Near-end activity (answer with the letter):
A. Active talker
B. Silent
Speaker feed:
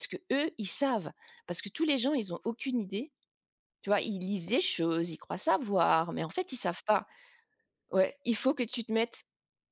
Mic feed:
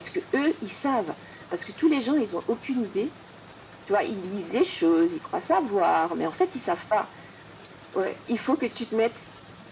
B